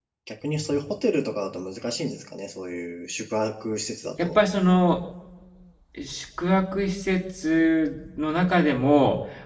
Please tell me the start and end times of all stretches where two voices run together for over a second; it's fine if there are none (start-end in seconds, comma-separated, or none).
none